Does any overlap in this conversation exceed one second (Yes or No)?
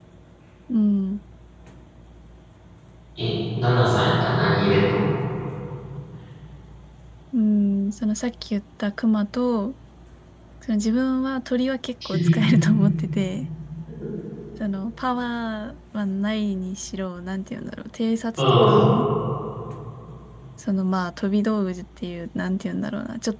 No